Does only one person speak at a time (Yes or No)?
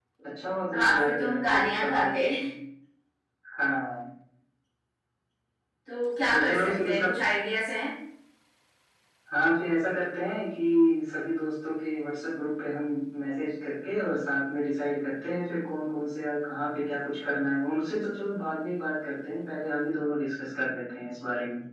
No